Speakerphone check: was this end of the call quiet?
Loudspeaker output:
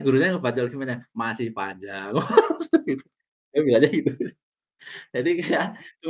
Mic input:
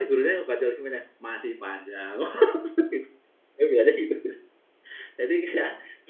Yes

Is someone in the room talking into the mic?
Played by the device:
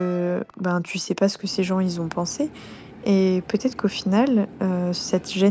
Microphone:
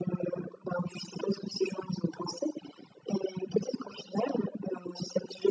No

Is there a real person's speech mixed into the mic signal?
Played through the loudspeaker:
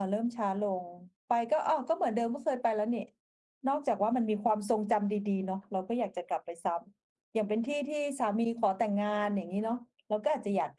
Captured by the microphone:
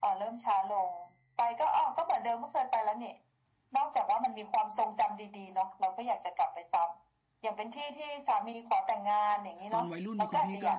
Yes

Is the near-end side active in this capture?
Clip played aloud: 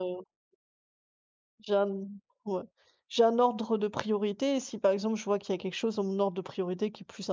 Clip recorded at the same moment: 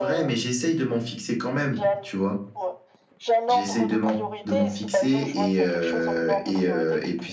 Yes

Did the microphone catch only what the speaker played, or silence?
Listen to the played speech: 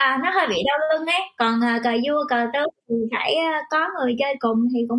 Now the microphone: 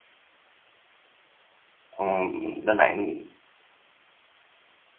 No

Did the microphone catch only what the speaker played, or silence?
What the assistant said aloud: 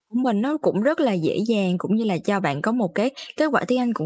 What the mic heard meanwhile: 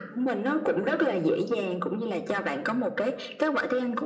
Yes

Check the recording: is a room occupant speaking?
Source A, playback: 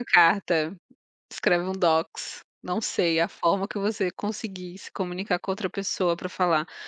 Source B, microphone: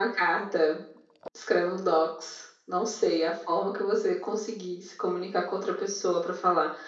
No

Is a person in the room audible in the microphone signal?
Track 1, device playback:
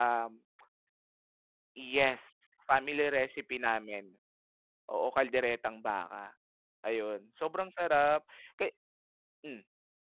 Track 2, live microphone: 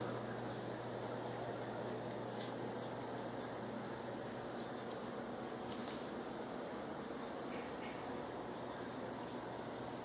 No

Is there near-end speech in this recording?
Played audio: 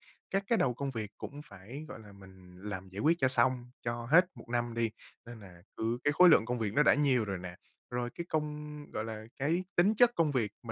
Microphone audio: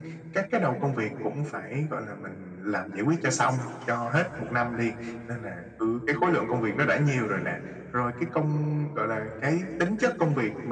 No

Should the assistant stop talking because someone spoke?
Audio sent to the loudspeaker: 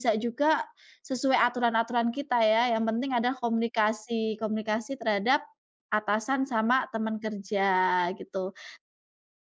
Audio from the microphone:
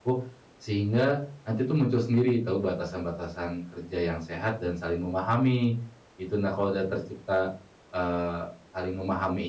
Yes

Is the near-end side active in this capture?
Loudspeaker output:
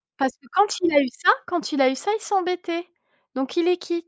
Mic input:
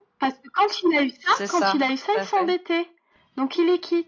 Yes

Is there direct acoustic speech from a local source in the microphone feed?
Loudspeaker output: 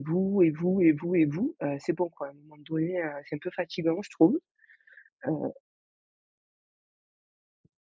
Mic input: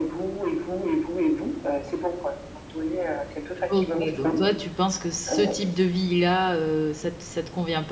Yes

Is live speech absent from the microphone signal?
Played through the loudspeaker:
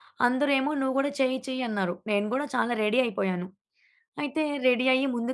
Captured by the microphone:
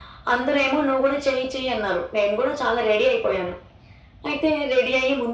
Yes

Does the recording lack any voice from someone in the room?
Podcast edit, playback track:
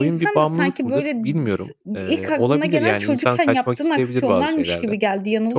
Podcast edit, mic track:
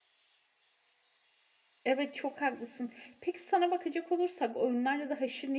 No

